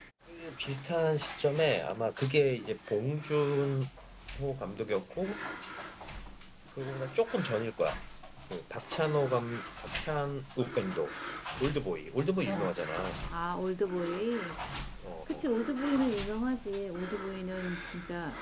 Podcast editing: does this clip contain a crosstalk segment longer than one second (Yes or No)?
No